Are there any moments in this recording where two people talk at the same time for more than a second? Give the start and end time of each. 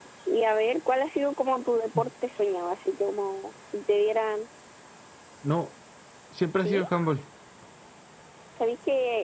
none

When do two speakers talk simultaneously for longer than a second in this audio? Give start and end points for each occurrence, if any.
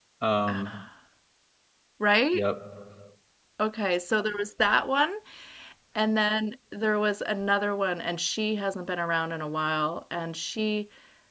none

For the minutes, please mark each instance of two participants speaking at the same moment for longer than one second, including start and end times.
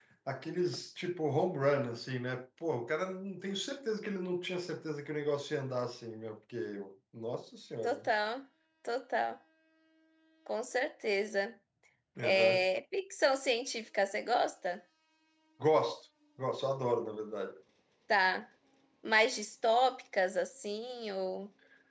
none

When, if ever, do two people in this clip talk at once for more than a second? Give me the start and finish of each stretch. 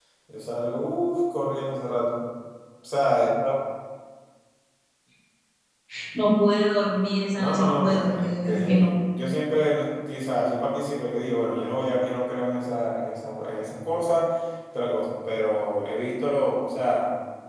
7.3-8.9

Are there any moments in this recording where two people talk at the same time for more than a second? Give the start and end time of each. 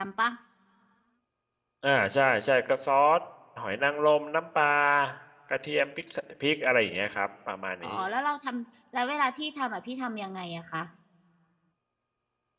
none

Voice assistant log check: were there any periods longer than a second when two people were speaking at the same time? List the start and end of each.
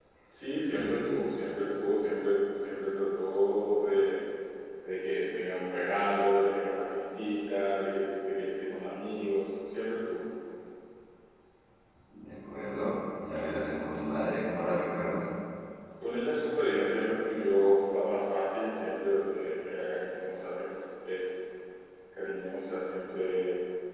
none

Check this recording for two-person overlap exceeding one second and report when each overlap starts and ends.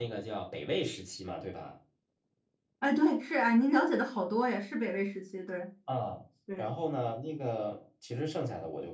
none

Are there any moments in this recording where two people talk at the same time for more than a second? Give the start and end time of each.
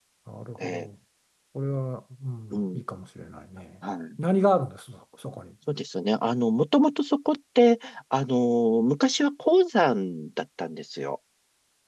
none

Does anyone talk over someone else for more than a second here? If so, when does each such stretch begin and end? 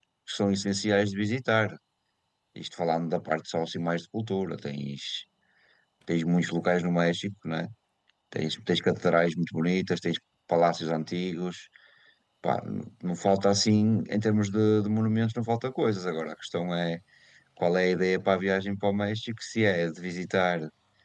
none

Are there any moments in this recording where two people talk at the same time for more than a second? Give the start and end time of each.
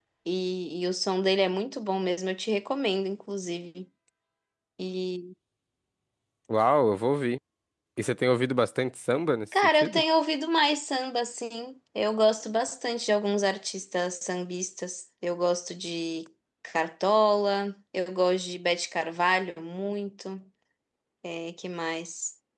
none

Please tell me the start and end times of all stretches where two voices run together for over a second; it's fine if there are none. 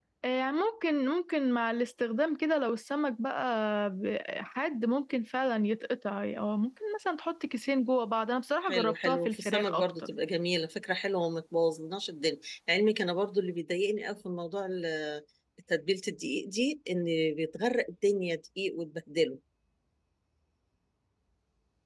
8.6-9.9

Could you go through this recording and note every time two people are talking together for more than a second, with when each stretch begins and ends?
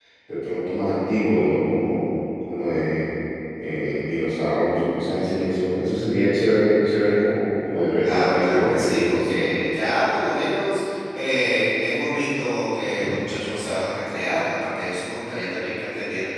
8.0-9.5

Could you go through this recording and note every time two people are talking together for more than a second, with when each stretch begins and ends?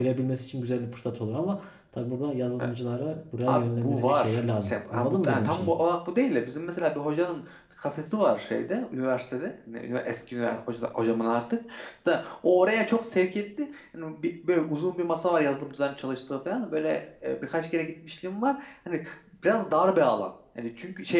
3.5-5.7

